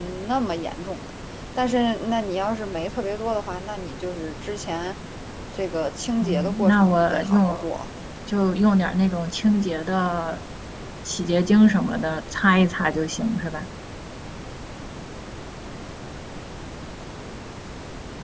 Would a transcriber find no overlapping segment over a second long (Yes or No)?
No